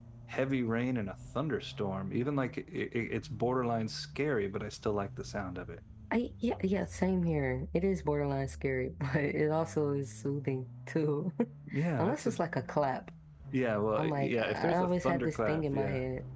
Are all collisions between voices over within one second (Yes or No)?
No